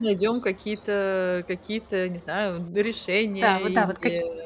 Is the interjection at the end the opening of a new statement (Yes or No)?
Yes